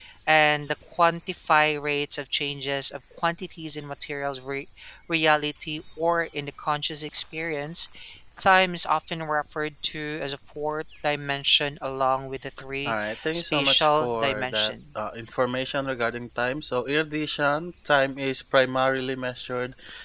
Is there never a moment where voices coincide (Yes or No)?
No